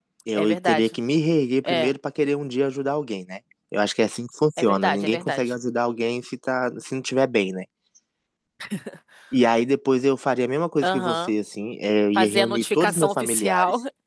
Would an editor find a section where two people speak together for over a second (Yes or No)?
Yes